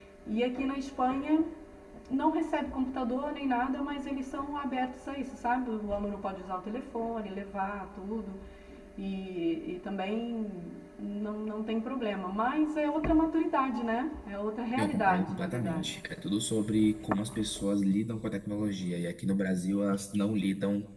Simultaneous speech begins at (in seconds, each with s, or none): 14.7 s